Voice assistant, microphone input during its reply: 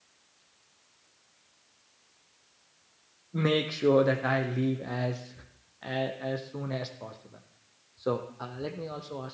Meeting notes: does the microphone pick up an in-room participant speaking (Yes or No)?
Yes